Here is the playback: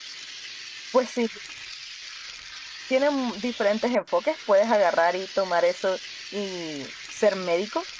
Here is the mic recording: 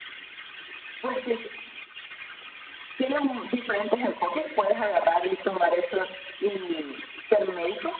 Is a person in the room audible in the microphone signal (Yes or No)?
No